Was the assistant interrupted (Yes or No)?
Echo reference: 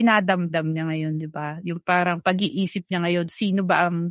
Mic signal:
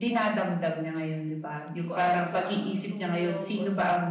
Yes